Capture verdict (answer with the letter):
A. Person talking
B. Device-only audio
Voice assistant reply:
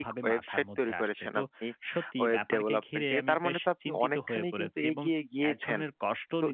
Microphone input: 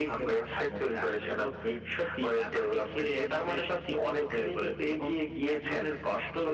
B